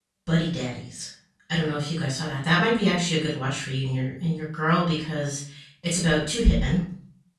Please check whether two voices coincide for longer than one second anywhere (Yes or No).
No